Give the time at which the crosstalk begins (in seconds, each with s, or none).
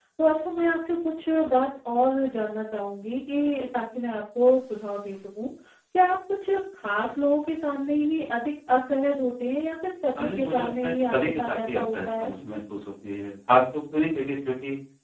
10.2 s